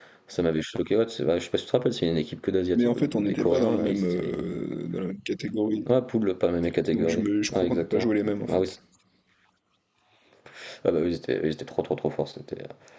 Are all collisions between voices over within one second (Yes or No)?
No